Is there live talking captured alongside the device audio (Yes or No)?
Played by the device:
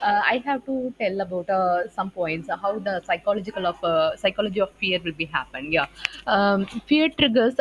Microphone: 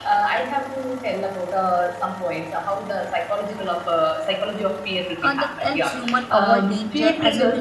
Yes